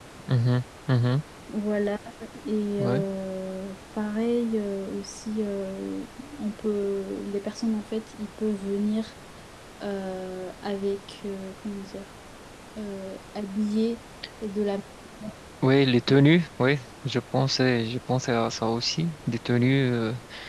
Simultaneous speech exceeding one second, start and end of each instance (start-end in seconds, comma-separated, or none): none